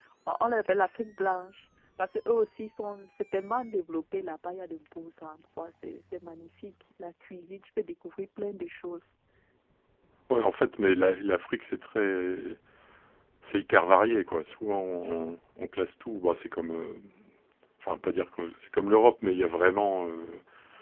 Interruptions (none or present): none